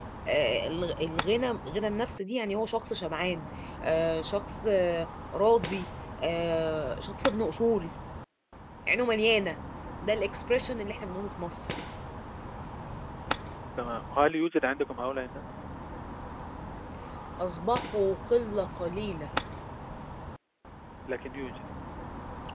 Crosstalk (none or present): none